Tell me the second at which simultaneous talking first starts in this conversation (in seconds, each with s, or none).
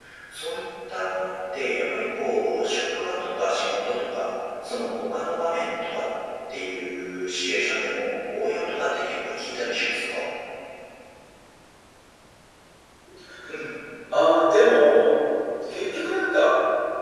none